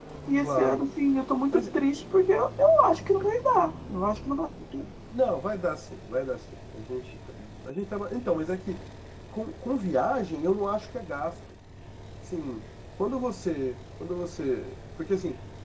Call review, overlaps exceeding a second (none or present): none